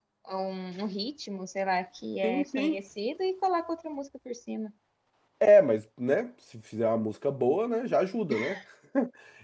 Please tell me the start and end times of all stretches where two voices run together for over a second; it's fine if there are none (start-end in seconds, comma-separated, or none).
none